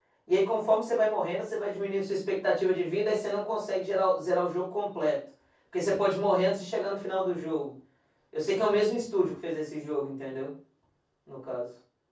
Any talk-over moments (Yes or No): No